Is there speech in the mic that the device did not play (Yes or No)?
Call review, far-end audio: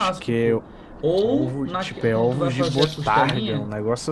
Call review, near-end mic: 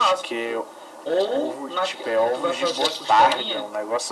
No